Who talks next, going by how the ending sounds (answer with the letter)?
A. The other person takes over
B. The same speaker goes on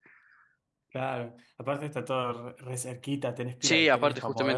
A